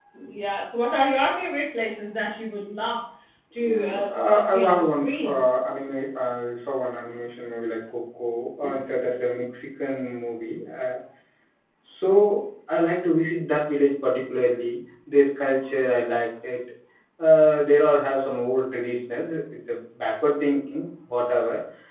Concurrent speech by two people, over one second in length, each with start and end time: 3.6-5.4

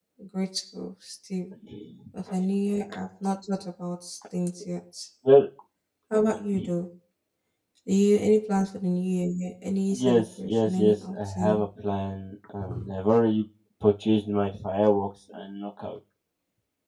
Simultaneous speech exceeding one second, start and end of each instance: 10.1-11.7

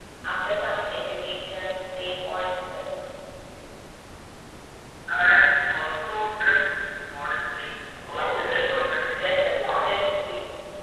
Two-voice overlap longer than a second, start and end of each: 8.1-9.3

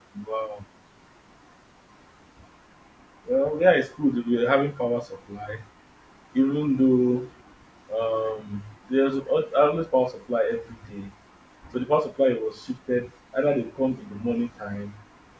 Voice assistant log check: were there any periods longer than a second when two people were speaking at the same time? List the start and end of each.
none

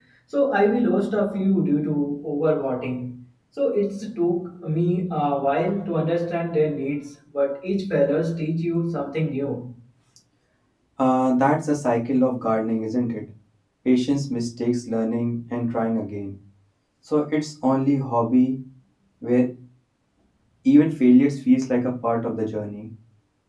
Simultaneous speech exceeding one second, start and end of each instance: none

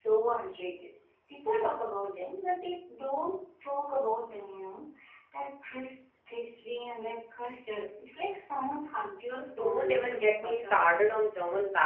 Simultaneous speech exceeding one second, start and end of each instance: 9.3-10.8

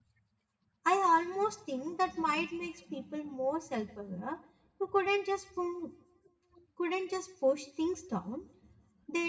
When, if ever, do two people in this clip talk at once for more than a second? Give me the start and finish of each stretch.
none

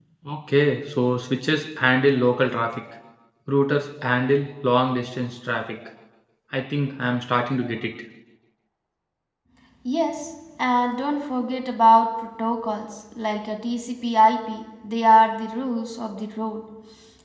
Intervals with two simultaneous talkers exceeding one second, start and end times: none

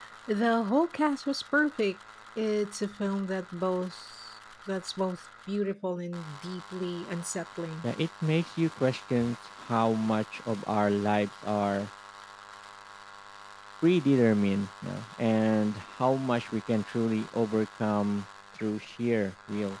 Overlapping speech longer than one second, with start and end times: none

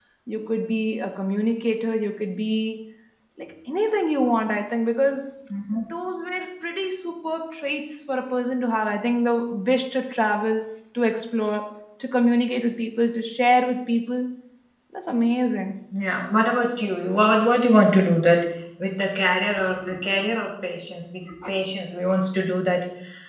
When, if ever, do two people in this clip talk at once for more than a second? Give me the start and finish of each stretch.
none

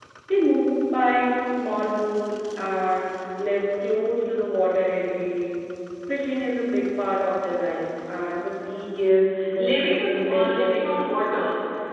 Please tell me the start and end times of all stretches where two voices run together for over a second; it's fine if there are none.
9.6-10.8

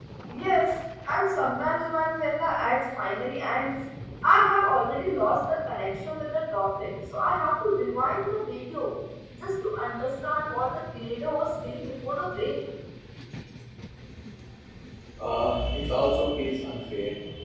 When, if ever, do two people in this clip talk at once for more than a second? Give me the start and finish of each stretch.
none

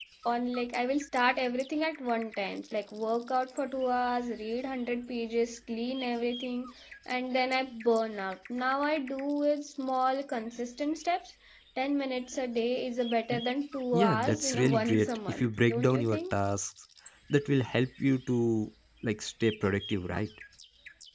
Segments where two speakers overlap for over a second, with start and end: 13.9-16.3

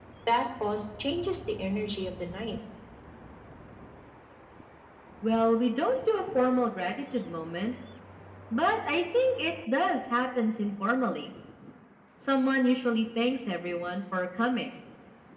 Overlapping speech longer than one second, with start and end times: none

